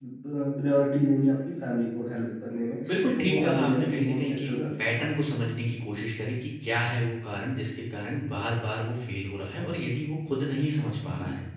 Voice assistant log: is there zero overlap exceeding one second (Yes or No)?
No